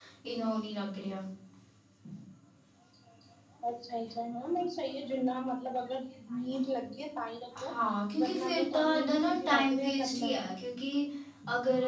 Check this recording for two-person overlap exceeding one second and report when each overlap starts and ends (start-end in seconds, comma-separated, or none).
8.2-10.3